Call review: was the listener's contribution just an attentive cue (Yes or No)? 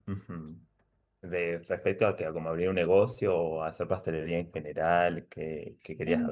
No